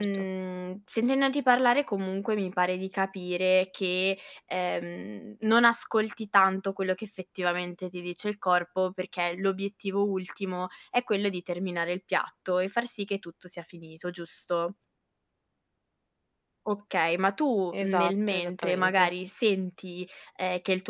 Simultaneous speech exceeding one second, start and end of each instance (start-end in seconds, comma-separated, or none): 17.7-19.1